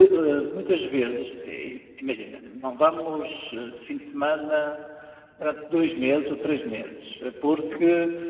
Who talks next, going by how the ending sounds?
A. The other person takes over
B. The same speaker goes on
B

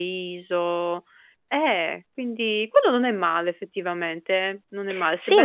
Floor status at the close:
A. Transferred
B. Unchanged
A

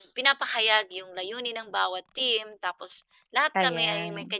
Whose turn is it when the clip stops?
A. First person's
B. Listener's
A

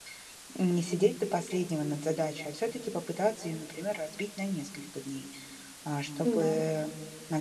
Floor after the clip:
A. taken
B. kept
B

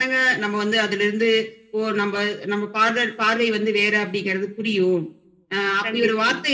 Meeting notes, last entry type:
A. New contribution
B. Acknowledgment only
B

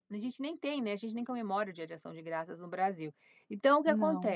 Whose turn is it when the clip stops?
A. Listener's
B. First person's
B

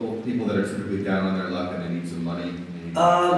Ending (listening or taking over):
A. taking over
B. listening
A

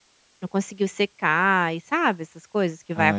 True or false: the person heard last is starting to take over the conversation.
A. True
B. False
A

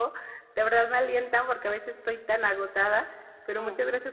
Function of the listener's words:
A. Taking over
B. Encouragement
B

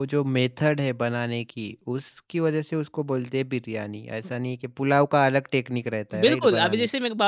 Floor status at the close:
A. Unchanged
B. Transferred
B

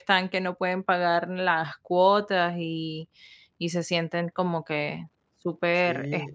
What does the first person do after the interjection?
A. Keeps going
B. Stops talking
B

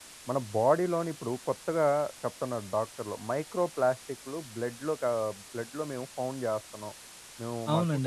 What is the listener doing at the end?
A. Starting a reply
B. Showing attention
A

